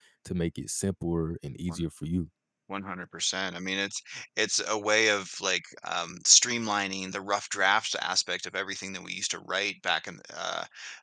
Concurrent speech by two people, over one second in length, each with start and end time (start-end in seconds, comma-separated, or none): none